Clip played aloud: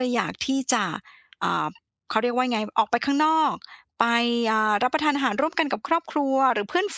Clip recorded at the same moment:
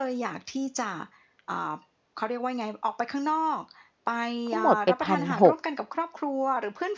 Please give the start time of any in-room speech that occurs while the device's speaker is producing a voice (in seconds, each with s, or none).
4.5 s